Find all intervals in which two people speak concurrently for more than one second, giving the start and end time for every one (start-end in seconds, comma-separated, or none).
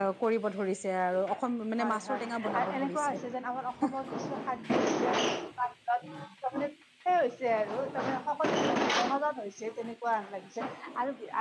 1.8-3.2